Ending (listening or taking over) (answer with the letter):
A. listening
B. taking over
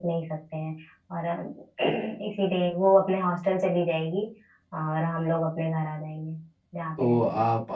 B